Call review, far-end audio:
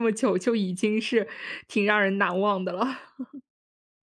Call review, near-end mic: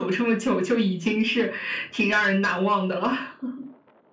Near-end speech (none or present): none